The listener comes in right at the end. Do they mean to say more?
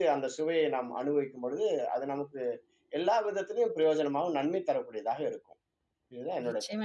Yes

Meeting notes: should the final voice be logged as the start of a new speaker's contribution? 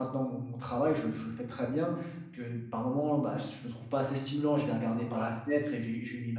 No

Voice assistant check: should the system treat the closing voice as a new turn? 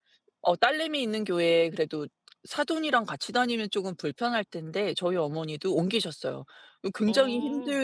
No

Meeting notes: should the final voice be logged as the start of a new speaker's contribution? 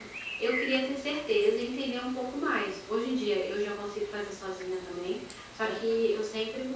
No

